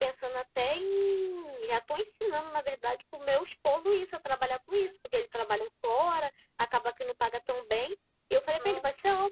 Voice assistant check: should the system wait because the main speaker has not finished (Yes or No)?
Yes